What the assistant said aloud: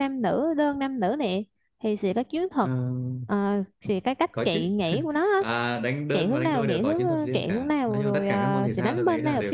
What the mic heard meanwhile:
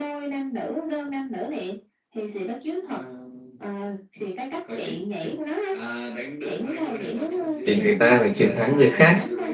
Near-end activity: present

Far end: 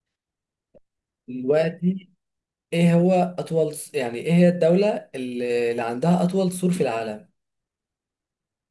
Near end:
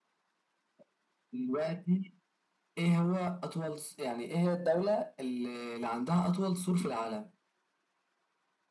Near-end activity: none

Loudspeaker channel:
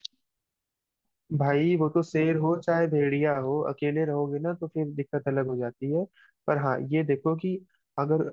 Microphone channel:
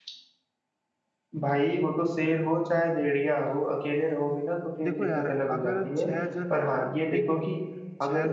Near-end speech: present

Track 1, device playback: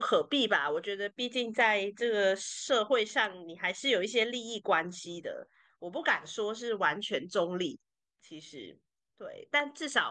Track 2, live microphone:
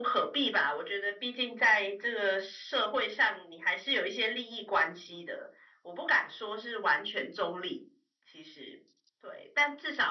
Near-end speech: none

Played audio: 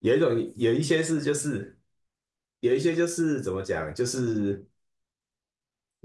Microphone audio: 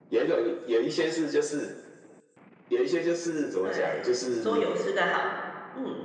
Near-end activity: present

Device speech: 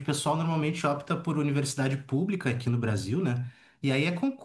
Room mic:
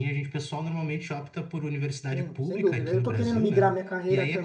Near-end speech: present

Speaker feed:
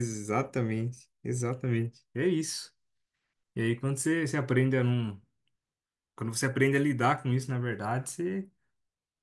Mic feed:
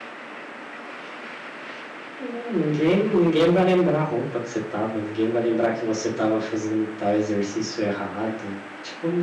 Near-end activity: present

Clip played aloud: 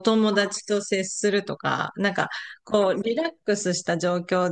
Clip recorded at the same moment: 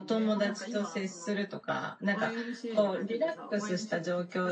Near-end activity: present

